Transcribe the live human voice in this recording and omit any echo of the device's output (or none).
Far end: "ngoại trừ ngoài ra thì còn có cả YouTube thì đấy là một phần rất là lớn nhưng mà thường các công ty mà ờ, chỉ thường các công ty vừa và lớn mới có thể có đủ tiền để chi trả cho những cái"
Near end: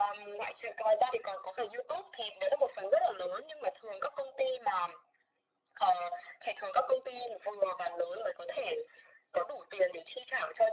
none